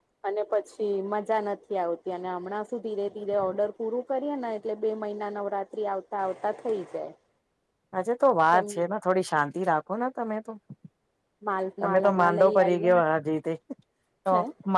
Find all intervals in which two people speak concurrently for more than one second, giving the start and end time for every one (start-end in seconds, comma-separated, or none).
11.8-13.0